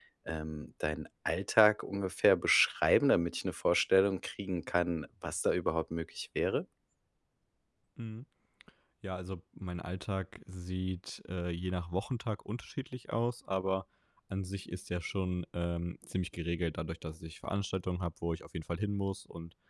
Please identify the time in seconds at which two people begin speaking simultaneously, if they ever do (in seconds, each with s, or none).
none